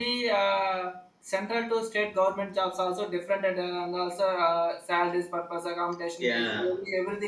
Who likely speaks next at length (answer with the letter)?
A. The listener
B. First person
B